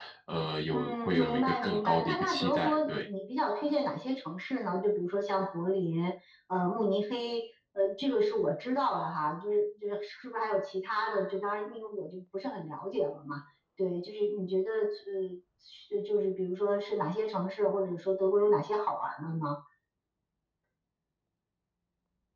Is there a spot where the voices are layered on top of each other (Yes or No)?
Yes